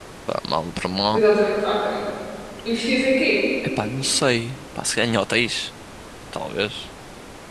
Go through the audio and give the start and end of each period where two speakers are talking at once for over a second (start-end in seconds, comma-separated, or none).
none